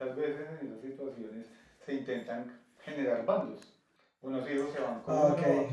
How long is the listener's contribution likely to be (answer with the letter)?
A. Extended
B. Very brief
B